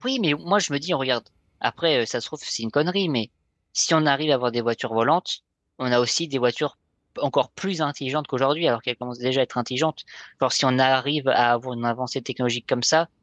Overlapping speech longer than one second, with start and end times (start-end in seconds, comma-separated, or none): none